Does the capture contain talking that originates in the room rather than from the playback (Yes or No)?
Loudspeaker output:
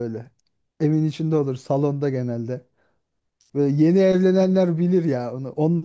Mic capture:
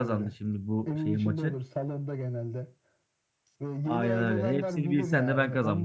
Yes